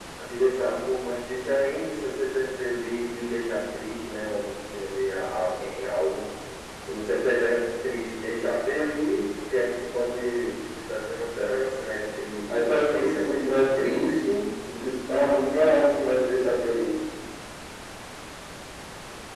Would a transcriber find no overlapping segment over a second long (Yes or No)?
No